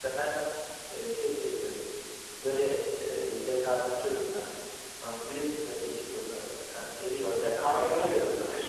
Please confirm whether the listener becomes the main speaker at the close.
Yes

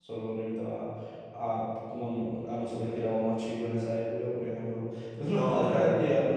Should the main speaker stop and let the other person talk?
No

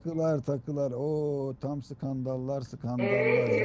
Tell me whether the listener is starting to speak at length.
Yes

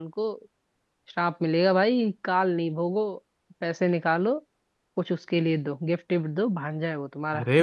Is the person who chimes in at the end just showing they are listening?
No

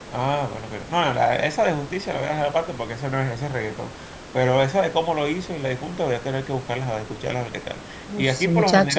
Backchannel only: No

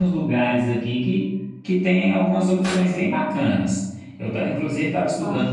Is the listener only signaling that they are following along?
Yes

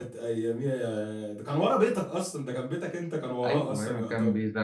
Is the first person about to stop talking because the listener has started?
Yes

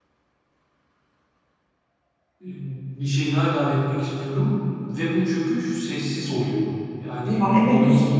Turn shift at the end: No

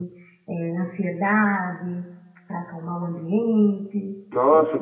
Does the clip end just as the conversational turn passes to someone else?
Yes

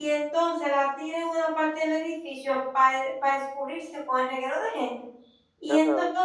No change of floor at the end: Yes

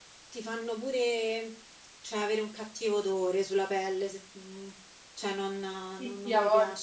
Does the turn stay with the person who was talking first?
No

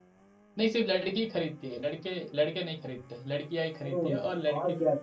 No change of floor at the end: No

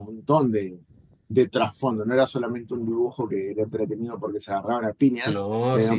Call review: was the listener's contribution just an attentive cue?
Yes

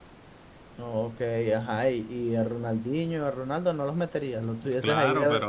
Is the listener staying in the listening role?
No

